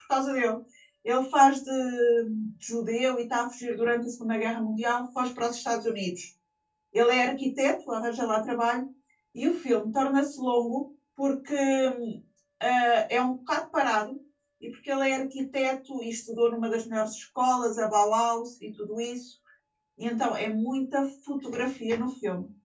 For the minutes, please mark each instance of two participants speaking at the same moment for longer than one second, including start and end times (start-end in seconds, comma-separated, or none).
none